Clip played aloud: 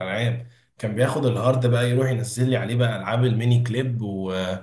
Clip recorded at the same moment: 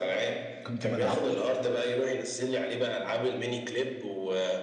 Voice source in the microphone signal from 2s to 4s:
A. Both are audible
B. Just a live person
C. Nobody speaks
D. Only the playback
D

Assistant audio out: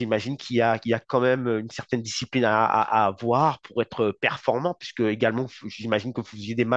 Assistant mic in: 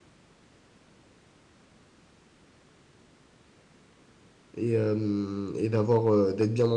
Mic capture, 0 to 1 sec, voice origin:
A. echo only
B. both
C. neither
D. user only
C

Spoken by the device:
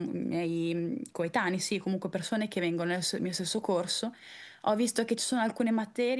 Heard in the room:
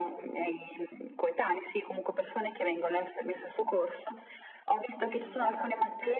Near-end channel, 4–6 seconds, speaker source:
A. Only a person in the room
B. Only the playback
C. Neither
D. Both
D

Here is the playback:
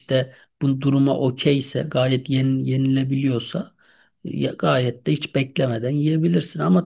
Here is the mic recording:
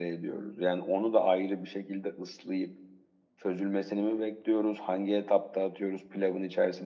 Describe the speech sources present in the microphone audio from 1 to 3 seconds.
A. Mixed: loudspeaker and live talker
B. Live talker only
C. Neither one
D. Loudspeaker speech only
B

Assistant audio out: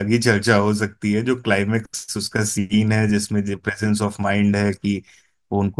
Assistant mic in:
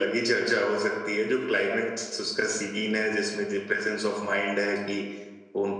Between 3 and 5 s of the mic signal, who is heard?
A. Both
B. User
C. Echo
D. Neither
C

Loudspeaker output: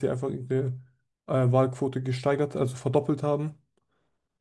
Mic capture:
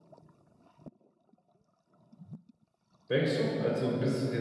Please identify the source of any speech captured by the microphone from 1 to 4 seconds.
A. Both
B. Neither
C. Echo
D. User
D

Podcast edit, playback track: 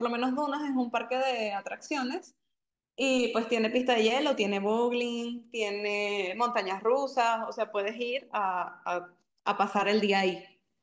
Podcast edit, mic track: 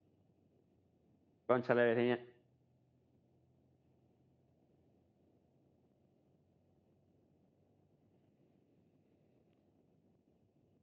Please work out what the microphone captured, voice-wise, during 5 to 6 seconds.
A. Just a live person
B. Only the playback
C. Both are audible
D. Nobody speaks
D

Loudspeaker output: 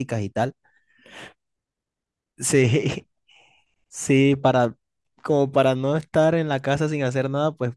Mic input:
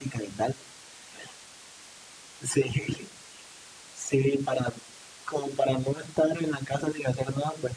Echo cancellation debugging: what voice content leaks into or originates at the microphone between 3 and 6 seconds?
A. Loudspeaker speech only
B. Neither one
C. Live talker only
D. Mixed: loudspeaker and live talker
A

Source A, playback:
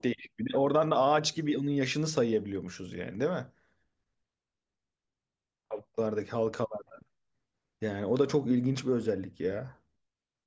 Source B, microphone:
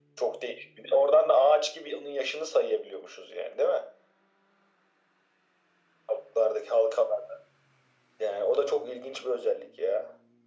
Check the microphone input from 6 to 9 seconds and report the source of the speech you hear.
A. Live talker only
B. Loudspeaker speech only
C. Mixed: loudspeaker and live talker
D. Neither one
B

